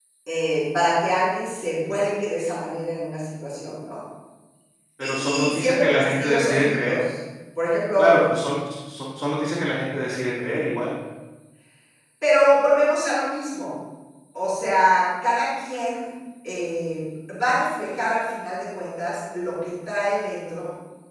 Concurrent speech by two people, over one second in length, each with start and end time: 5.0-7.0

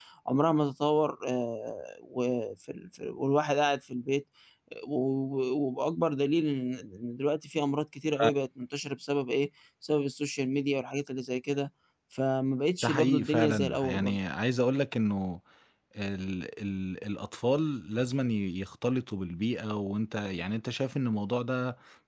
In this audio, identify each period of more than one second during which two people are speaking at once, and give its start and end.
12.8-14.2

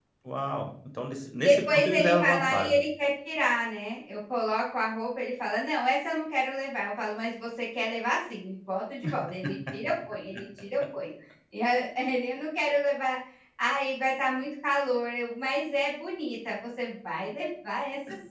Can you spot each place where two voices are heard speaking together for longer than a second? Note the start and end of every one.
1.4-2.8

